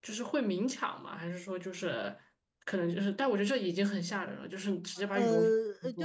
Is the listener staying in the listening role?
No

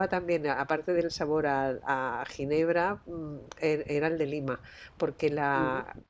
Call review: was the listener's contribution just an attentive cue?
Yes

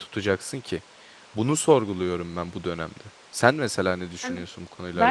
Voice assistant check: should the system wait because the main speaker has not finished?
No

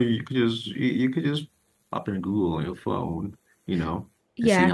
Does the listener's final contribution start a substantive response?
Yes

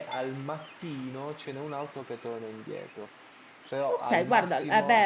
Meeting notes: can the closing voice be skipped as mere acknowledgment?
No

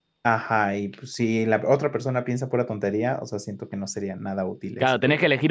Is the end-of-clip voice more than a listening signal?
Yes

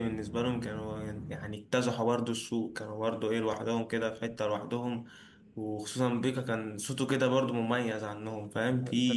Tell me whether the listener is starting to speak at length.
Yes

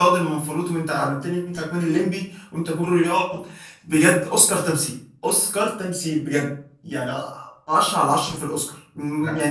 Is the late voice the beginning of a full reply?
No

